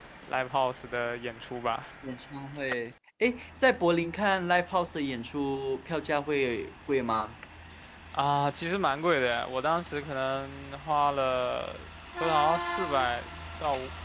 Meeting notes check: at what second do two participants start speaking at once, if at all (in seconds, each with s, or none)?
none